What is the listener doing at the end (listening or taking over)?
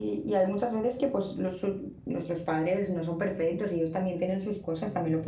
listening